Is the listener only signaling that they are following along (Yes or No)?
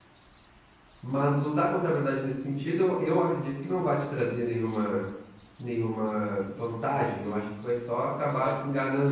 Yes